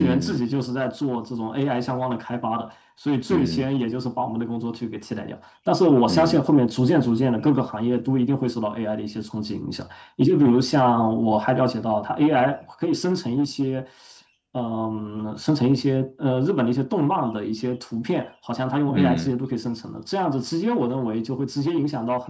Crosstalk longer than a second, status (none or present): none